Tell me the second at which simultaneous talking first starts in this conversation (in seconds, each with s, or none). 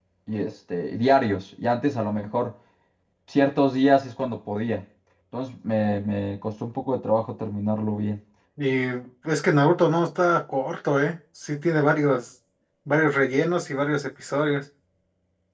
none